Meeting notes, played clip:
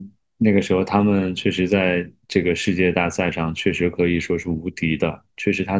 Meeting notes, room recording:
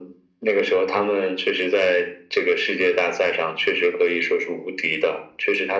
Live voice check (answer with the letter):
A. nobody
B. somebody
A